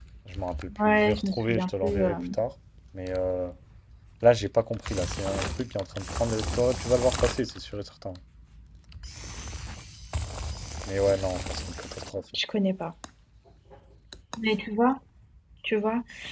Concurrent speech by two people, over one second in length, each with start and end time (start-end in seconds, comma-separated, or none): 0.8-2.1